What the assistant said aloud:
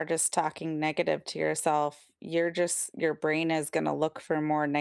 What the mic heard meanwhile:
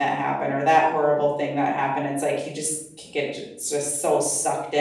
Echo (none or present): none